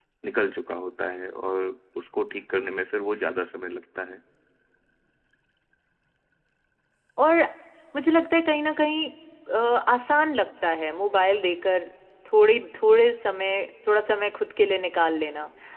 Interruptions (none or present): none